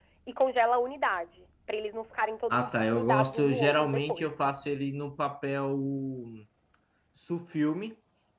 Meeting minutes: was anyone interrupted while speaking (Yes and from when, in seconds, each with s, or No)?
Yes, from 2.5 s